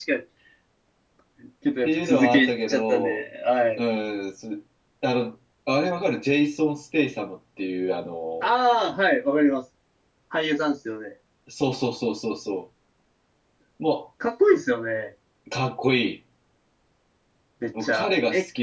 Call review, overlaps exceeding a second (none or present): present